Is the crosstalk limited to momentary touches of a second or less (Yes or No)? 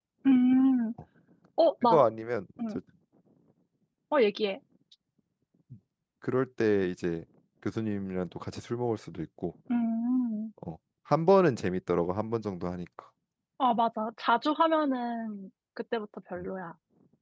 Yes